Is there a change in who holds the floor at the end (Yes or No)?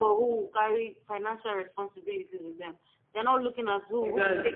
No